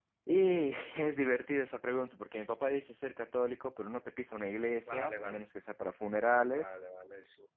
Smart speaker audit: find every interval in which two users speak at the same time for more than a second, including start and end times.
none

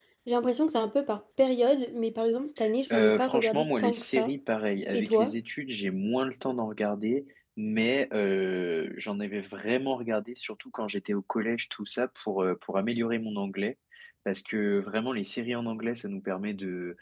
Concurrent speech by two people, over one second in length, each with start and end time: 2.9-4.3

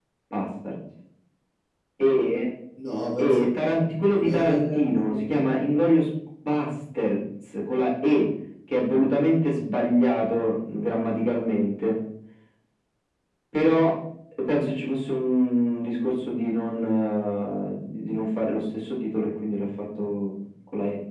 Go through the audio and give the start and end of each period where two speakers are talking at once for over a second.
3.2-5.3

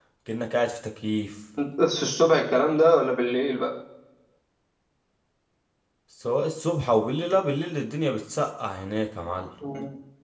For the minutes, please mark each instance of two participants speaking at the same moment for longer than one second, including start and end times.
none

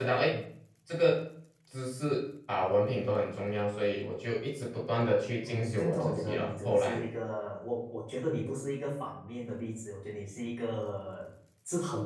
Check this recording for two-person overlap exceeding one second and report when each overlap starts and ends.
5.4-7.0

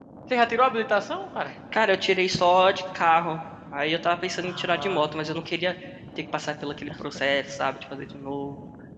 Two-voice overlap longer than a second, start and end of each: none

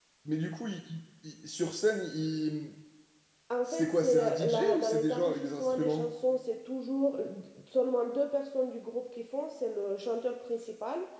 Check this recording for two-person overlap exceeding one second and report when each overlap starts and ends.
3.7-6.1

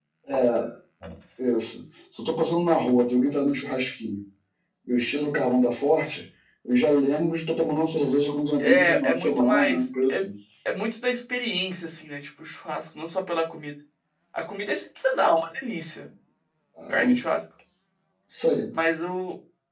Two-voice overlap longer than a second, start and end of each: 8.6-10.2

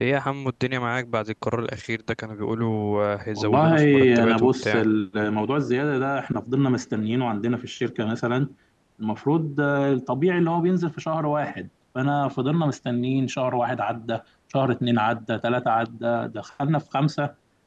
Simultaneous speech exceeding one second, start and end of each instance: 3.3-4.8

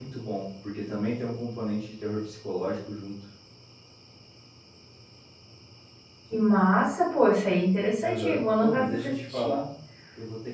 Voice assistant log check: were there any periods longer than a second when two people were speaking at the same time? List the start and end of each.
8.0-9.6

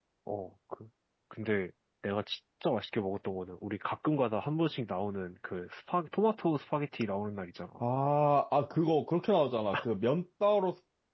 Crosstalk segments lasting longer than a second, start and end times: none

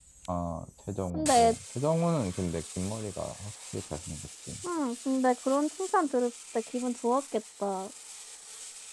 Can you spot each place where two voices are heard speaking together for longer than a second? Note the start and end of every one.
none

